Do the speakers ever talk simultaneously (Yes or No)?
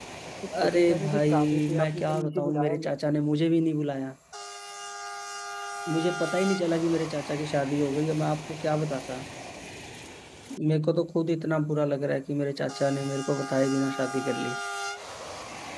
Yes